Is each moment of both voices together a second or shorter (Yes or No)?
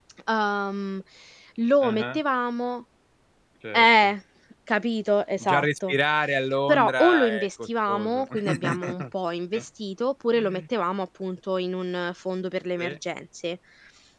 No